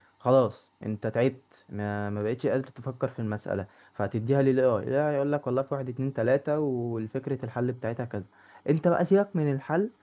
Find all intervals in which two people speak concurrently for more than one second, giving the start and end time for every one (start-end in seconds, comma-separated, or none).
none